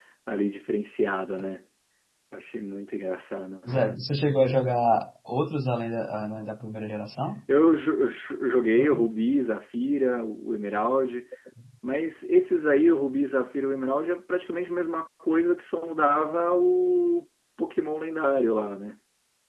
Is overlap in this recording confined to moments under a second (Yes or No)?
Yes